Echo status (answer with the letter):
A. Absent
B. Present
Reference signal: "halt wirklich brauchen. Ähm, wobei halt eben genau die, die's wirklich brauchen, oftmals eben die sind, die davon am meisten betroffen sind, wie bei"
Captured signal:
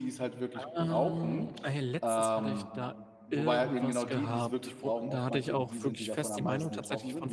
B